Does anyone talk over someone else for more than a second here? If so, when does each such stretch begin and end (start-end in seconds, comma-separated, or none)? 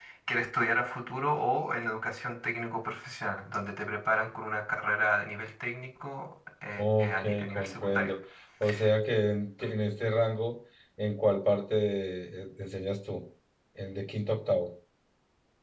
6.8-8.1